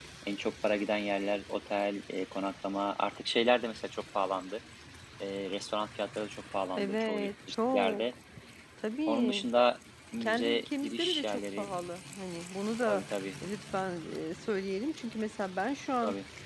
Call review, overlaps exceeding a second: present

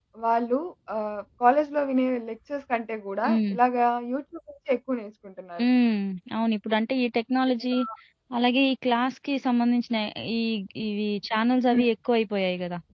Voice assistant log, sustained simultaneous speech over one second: none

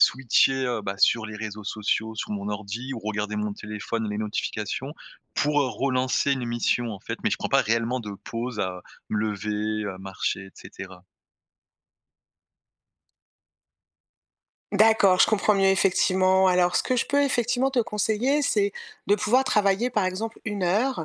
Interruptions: none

